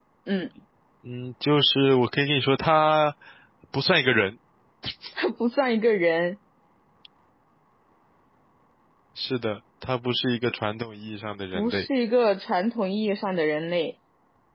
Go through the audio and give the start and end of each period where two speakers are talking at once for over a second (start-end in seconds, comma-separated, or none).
none